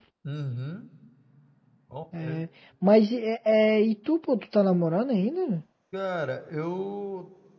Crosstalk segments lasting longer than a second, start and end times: none

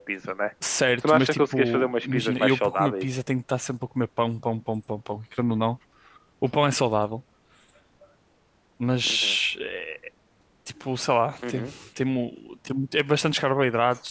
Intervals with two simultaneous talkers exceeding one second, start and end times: 1.1-3.0

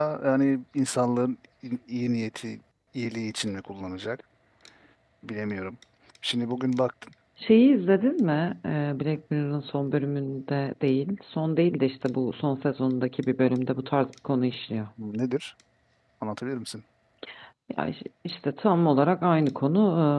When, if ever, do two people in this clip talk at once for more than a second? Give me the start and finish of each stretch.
none

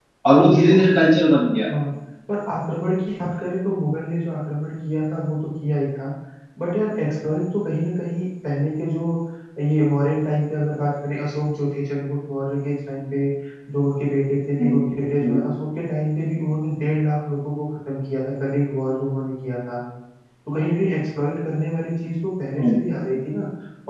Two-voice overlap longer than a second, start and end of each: none

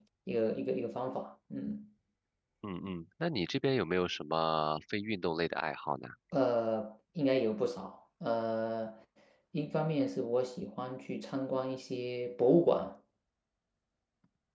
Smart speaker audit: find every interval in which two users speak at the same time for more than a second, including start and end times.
none

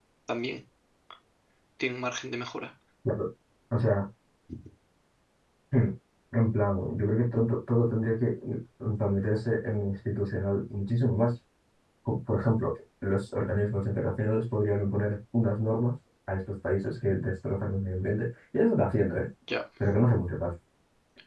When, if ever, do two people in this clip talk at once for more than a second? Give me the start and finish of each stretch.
none

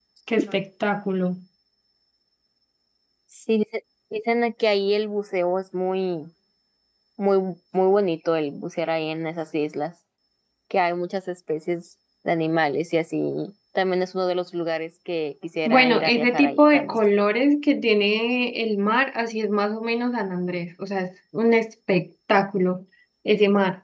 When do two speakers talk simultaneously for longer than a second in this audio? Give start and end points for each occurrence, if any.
15.7-17.0

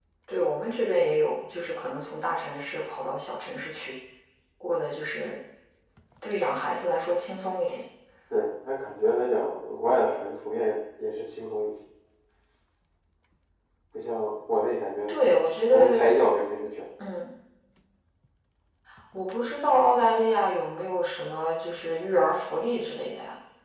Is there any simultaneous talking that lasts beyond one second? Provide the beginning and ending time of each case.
none

